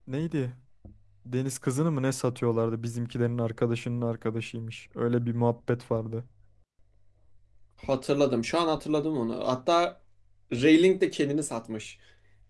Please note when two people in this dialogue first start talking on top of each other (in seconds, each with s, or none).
none